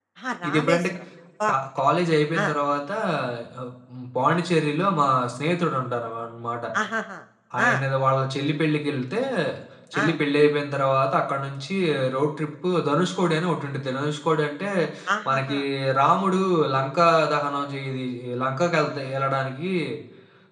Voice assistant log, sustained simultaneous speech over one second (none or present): none